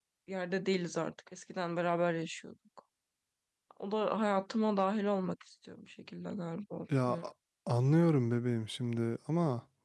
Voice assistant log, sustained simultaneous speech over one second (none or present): none